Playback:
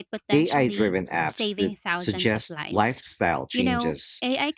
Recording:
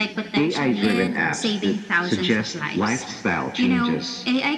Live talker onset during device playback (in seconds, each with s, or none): 0.8 s